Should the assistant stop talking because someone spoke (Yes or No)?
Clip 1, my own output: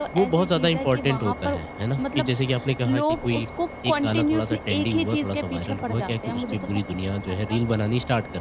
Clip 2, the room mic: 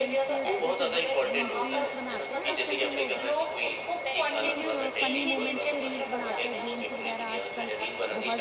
Yes